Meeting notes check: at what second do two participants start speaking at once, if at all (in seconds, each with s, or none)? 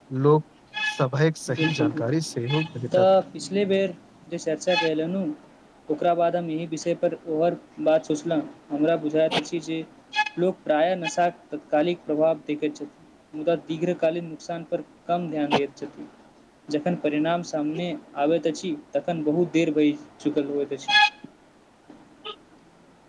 1.6 s